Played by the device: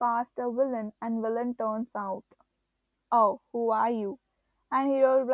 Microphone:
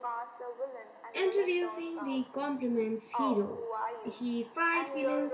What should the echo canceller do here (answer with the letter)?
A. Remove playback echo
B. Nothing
A